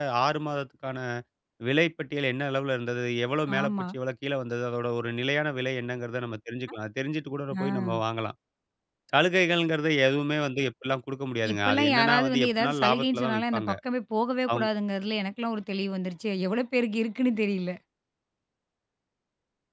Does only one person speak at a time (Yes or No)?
No